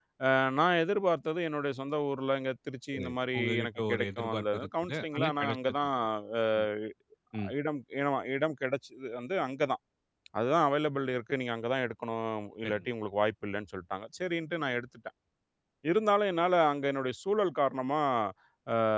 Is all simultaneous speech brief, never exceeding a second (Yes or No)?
No